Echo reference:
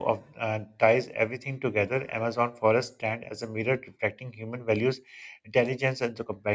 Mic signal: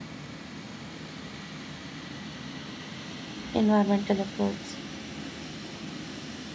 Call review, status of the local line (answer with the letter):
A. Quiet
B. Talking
B